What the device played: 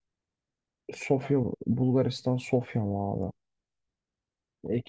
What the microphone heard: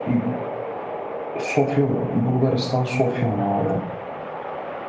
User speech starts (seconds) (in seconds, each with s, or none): none